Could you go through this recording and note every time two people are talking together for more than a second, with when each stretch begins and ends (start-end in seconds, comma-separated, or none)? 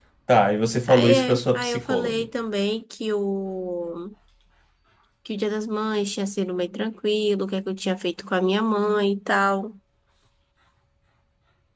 0.9-2.2